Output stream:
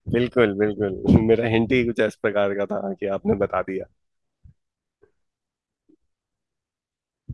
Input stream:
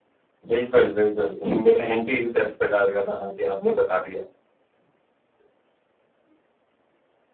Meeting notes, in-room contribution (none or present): none